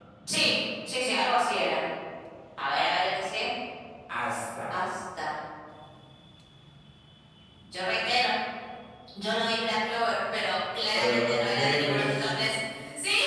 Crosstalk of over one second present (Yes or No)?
Yes